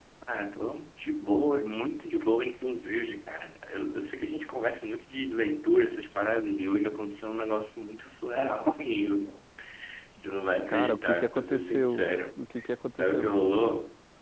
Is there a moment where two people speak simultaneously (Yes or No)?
Yes